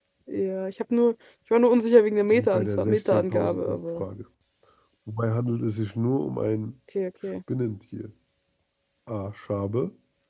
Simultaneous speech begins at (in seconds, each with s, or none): 2.3 s